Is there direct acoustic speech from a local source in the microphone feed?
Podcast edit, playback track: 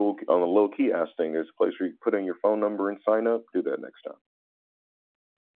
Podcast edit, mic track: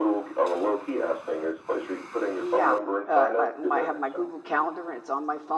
Yes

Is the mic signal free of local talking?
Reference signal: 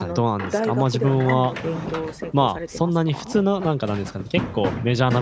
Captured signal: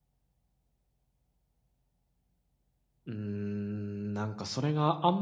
No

